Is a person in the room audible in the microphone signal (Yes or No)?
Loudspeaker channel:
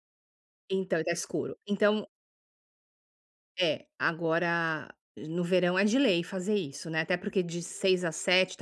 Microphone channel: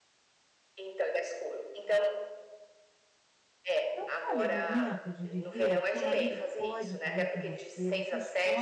Yes